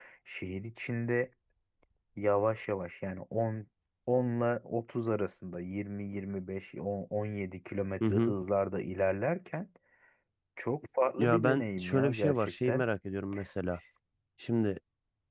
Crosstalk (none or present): present